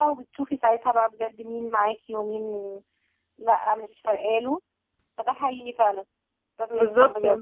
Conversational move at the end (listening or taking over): taking over